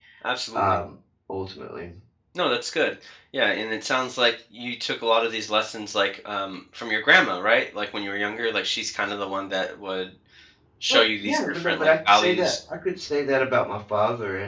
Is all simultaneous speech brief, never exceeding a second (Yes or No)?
No